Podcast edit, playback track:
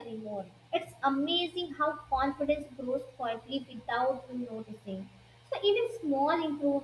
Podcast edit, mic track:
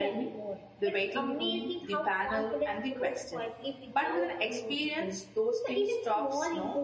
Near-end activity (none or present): present